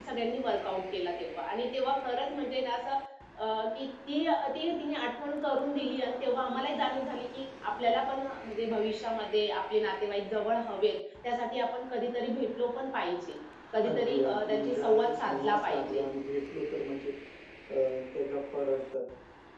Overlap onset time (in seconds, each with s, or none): 13.8 s